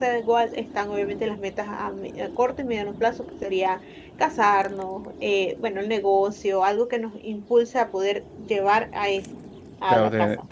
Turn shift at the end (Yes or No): Yes